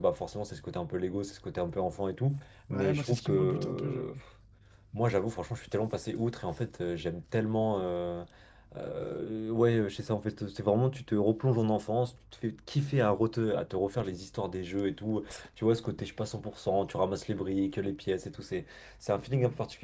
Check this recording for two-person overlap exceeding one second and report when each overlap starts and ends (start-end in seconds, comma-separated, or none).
2.7-4.1